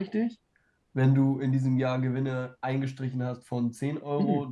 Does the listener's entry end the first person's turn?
Yes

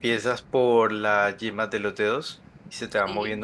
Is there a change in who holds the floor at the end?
No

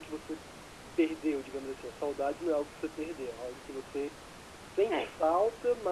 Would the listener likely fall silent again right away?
Yes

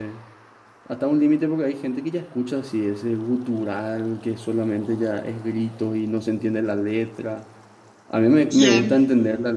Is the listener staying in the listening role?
Yes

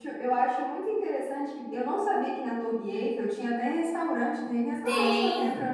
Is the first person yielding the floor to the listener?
Yes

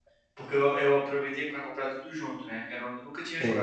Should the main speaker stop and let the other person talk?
No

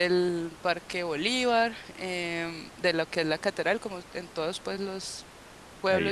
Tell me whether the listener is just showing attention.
Yes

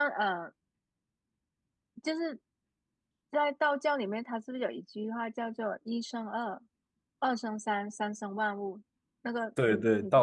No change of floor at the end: No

